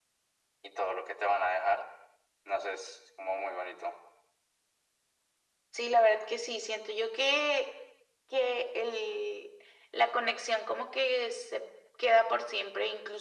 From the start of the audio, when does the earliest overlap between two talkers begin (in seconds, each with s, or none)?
none